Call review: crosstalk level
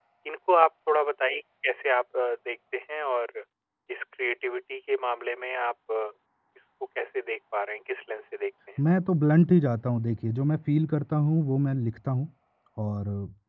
none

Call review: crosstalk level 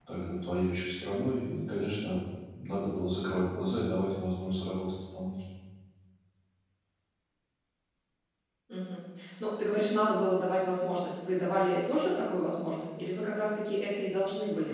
none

